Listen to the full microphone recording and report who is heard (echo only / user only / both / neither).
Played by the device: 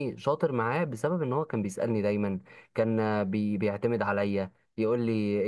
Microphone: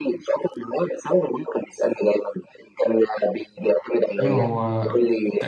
both